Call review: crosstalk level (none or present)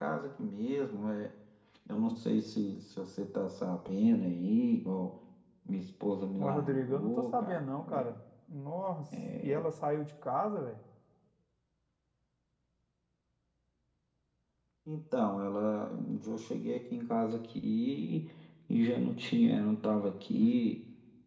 present